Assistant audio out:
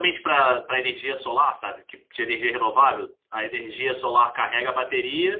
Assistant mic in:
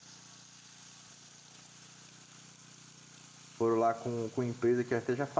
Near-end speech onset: 3.6 s

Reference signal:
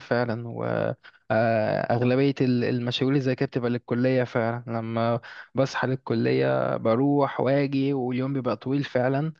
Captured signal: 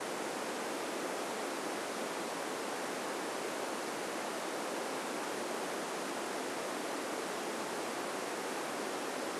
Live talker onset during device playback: none

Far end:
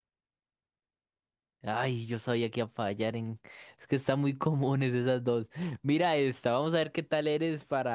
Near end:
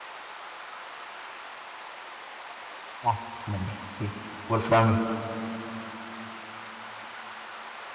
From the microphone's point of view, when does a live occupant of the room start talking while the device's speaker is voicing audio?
3.0 s

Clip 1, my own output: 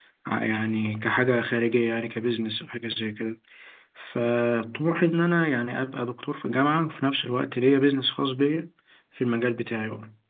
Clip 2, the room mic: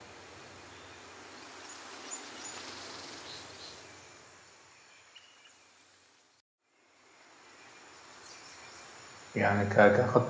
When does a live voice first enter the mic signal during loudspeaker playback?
9.3 s

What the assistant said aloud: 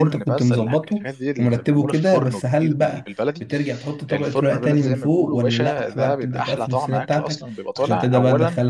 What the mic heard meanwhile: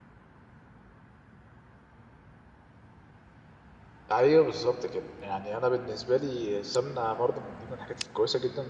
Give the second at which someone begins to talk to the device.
4.1 s

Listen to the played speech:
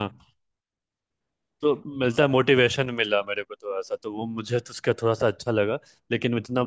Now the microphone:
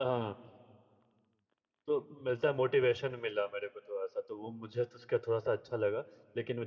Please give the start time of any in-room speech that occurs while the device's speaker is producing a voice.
none

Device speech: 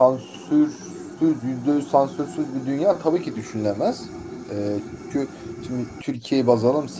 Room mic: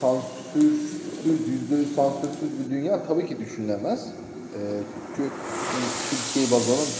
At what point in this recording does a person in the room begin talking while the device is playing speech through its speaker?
none

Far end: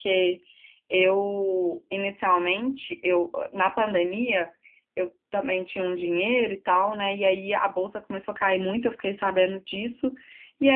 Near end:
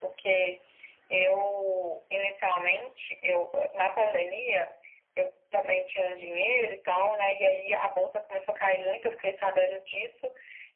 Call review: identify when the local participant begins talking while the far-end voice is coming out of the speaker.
none

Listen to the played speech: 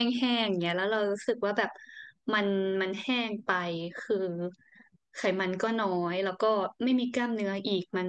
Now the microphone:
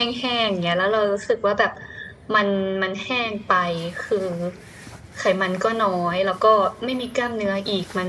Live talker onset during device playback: none

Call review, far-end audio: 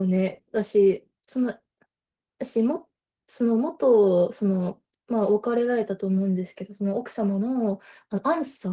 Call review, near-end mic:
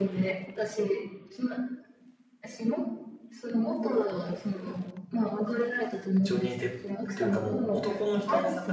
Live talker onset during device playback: 6.2 s

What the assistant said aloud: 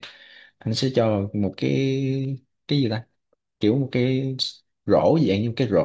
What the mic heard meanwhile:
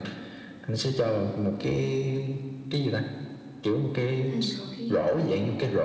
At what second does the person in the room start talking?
4.2 s

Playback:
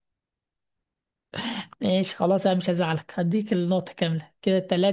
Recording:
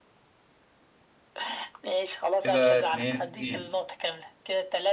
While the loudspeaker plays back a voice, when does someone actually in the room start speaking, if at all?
2.4 s

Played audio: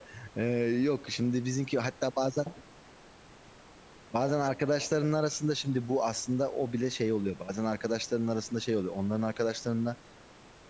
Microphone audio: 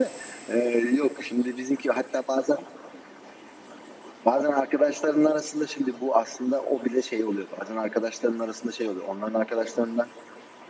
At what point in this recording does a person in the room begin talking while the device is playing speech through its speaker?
none

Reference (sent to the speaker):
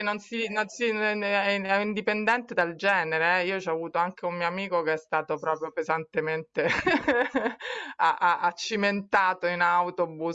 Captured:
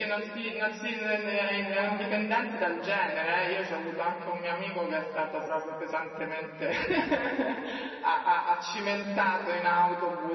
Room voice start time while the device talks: 1.6 s

